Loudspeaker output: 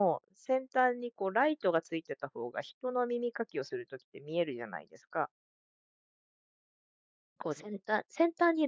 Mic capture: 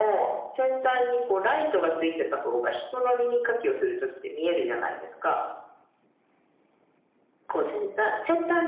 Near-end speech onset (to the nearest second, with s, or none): none